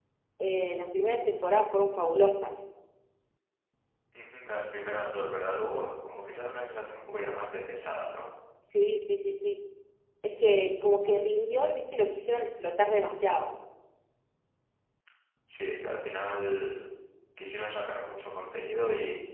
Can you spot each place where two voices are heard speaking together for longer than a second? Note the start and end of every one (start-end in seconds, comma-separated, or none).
none